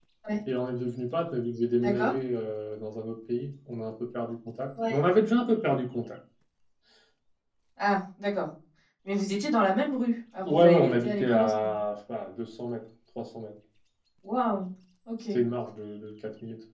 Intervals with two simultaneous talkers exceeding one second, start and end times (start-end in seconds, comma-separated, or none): 10.4-11.7